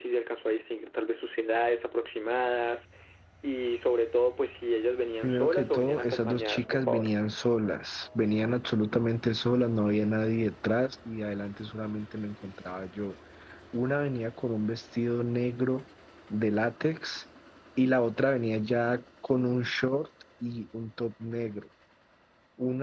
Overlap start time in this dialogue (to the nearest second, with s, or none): 5 s